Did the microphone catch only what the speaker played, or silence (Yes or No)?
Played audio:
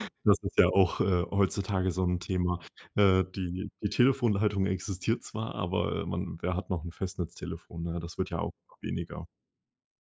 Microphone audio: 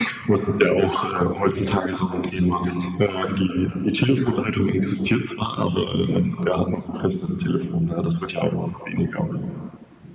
Yes